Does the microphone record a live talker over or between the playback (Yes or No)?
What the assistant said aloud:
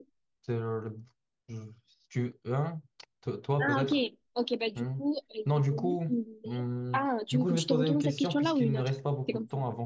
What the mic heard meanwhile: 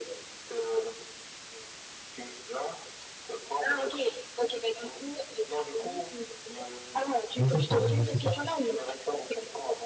Yes